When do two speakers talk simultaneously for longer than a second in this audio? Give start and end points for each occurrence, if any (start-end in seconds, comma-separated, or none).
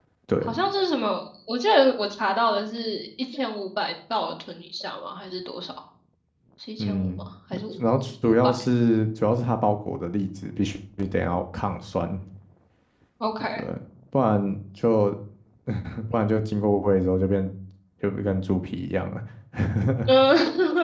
none